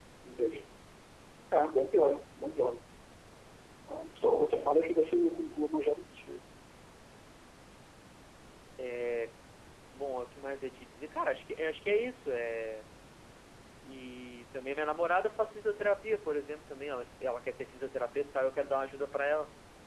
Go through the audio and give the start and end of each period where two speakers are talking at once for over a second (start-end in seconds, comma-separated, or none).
none